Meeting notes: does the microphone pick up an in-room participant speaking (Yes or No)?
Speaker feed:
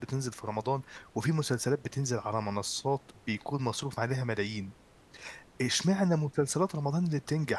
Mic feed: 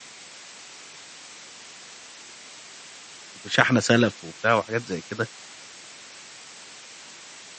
Yes